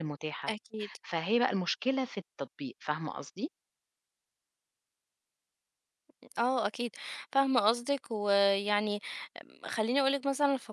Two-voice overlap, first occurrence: none

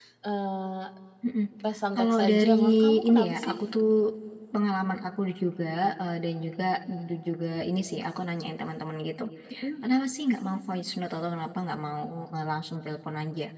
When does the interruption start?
1.9 s

